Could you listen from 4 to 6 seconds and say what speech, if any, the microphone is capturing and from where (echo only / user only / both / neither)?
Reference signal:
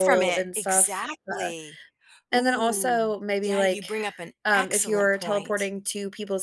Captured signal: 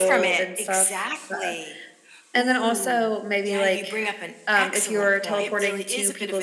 both